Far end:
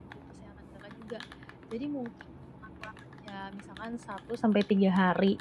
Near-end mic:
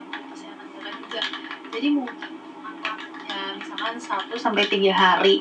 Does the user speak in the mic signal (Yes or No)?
No